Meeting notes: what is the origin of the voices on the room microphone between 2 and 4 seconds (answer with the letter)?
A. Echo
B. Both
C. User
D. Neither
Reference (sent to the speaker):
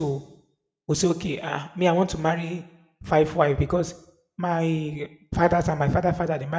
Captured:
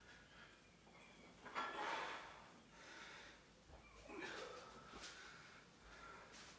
D